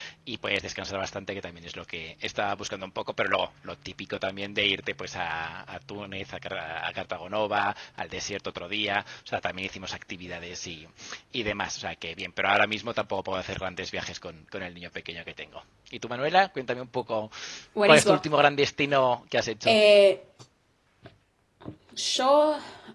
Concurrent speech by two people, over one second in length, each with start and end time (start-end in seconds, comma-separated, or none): none